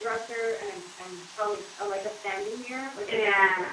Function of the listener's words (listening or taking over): taking over